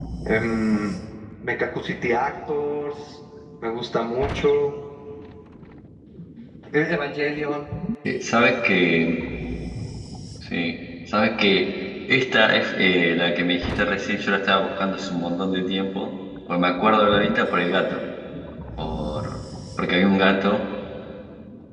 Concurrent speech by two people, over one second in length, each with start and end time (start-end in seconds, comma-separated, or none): none